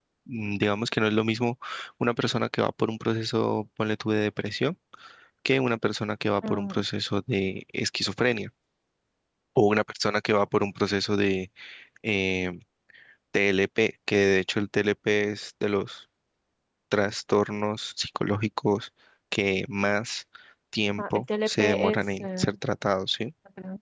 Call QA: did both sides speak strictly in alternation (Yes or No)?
No